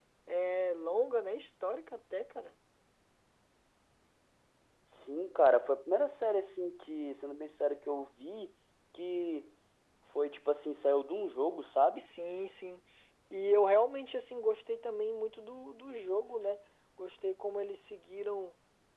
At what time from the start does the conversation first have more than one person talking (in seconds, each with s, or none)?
none